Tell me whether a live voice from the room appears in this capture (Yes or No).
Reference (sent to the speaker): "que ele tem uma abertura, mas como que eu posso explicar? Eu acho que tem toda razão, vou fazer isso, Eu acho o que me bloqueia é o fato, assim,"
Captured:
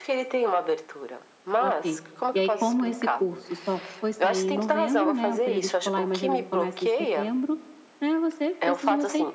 Yes